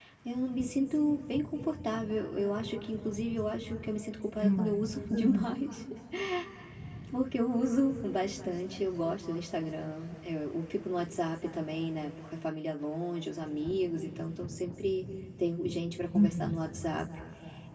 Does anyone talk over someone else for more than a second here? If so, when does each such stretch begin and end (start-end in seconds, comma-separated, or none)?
4.3-5.5